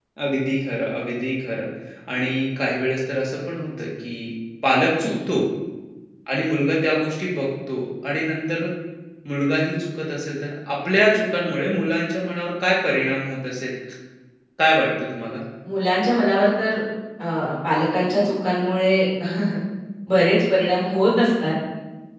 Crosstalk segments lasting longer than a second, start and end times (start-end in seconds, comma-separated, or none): none